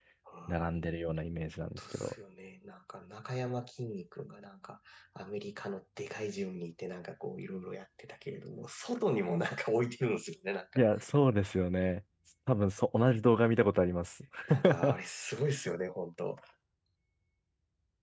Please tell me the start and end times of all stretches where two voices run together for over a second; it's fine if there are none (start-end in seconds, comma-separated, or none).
none